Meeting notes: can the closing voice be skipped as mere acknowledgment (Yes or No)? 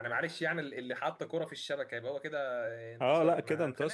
No